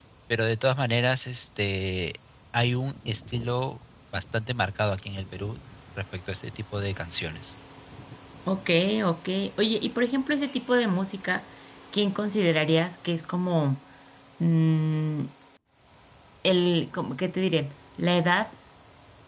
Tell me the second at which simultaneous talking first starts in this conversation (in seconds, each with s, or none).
none